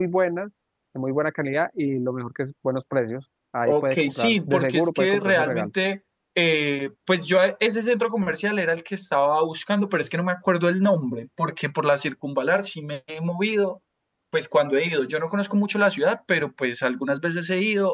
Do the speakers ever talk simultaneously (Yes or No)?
Yes